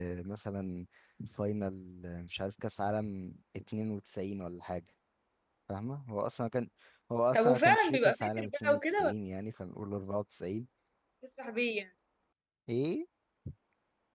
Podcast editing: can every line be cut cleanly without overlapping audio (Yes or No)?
No